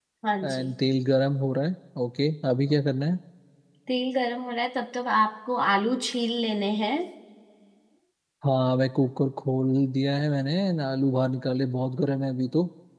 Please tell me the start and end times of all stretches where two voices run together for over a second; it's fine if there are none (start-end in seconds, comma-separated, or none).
none